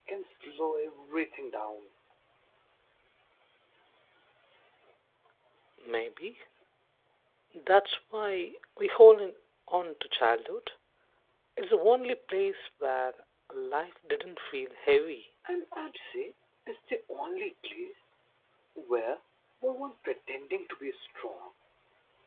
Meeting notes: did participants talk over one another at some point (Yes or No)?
No